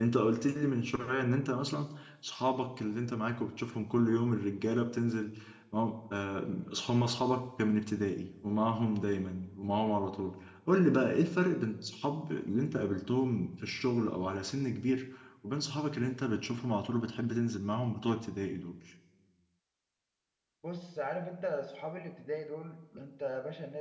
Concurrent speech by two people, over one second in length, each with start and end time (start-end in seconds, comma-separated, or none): none